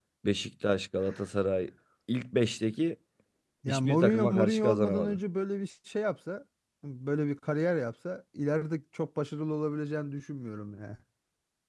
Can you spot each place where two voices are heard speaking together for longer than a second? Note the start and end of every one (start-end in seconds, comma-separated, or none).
3.7-5.2